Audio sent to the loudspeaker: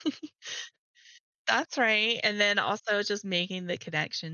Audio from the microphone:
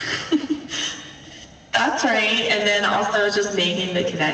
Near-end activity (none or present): none